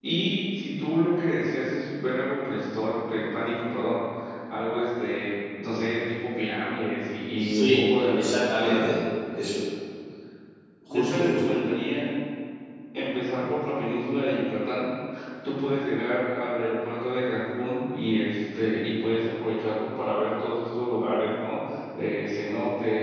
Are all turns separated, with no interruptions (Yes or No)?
No